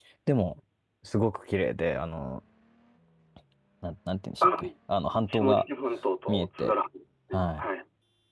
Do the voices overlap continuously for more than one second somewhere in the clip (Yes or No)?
No